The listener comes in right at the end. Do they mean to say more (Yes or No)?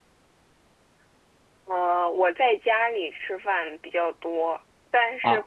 No